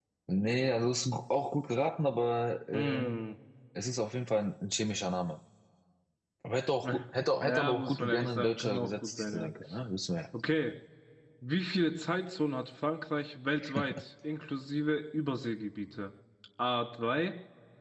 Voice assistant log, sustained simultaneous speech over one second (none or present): present